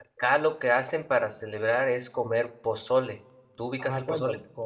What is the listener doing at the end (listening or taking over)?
taking over